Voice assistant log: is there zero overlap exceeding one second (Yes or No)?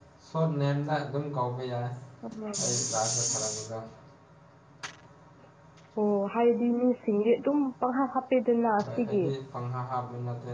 Yes